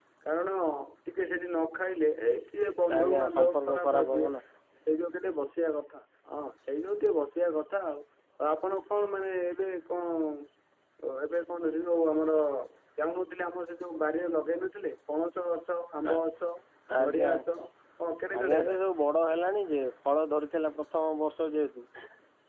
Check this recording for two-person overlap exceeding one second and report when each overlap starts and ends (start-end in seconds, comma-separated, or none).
3.0-4.3